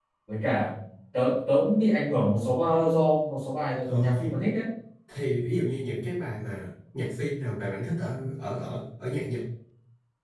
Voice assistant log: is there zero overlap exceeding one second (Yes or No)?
Yes